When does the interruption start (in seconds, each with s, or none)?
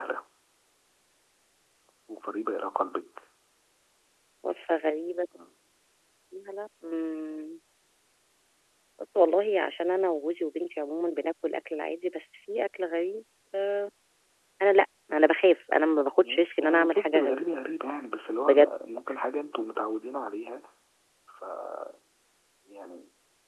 16.2 s